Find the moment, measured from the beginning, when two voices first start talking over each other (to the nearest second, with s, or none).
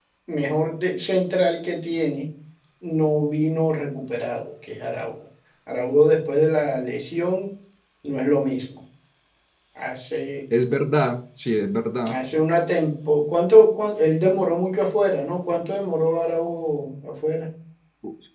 none